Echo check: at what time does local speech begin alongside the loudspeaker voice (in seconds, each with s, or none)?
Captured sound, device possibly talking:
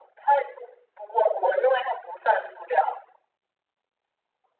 none